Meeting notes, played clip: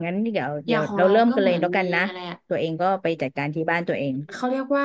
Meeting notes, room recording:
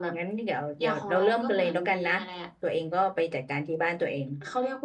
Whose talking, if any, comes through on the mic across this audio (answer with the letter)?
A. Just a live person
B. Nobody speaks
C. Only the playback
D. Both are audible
C